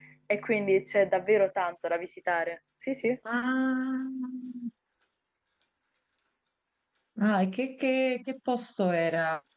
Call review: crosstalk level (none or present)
none